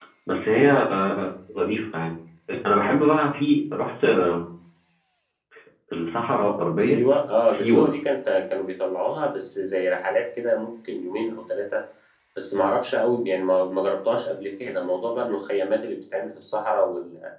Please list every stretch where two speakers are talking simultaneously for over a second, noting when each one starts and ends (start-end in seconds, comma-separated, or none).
none